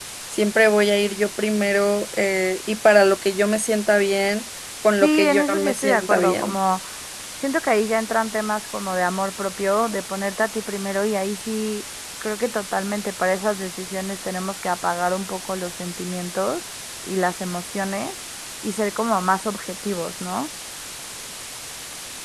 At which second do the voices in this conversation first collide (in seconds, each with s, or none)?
5.0 s